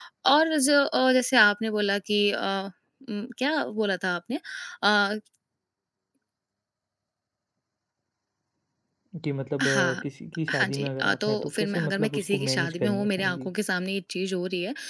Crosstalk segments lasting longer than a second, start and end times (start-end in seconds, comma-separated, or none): 10.5-13.5